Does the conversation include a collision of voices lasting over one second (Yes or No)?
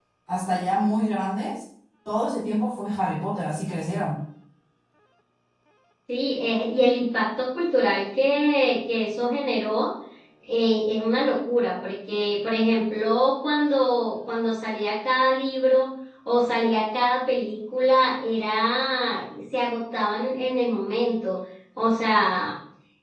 No